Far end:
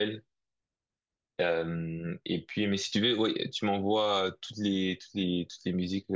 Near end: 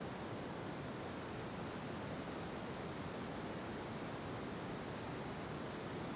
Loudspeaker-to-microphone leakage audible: No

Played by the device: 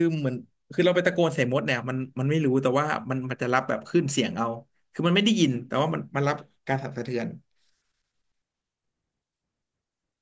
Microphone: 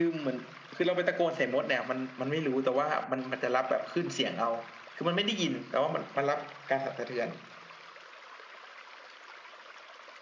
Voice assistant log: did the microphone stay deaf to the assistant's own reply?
No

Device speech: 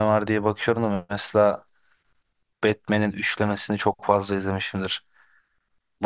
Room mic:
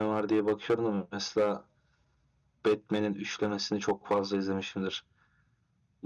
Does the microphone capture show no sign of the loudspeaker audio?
No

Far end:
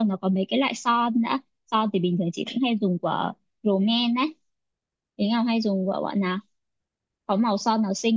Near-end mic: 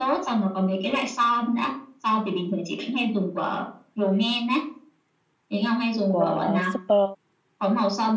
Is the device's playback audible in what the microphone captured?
Yes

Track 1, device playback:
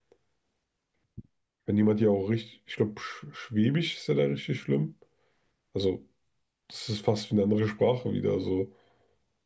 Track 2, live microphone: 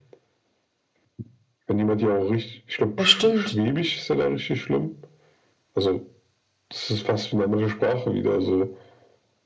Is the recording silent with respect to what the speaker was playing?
No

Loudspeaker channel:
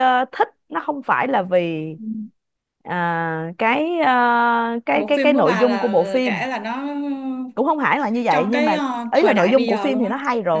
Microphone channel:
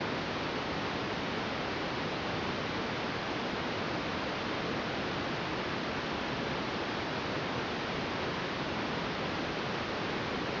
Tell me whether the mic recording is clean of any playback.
Yes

